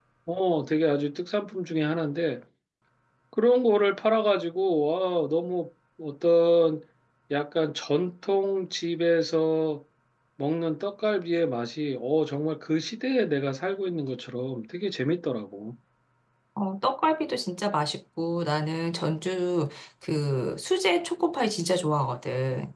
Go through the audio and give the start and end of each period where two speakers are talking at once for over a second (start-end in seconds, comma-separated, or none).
none